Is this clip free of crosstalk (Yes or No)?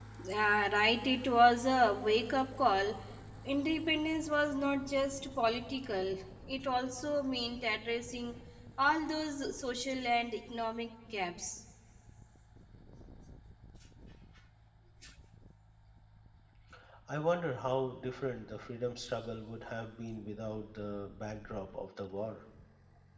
Yes